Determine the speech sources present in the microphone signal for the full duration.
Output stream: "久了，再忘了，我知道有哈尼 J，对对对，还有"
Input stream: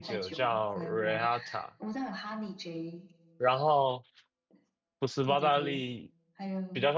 both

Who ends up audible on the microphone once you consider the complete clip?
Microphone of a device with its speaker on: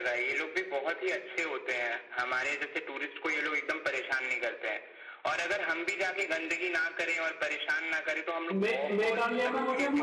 both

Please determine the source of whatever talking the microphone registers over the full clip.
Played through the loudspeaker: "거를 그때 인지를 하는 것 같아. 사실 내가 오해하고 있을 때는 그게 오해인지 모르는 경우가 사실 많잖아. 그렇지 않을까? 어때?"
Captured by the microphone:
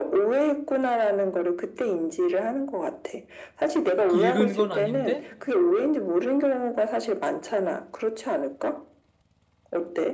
both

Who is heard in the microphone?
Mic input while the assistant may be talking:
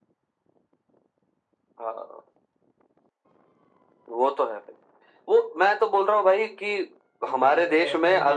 both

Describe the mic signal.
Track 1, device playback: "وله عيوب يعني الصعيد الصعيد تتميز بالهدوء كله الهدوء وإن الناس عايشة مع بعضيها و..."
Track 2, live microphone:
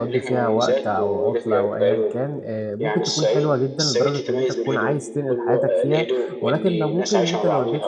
both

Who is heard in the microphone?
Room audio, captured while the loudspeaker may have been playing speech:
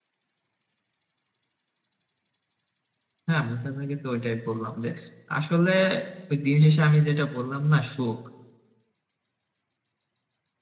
user only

